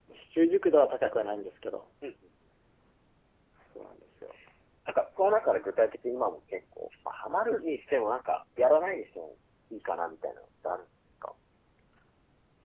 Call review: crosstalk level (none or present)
none